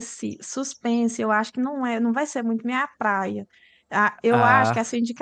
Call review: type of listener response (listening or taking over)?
listening